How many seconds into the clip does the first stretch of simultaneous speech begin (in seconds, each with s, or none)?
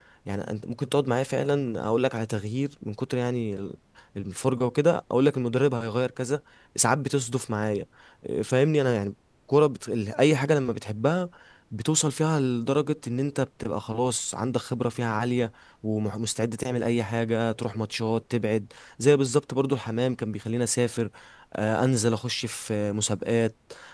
none